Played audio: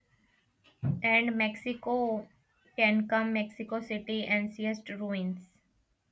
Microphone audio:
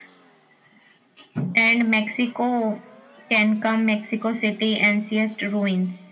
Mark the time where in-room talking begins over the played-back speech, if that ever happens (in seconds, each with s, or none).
none